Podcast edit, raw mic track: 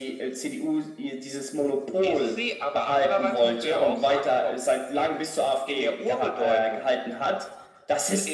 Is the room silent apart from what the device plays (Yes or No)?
Yes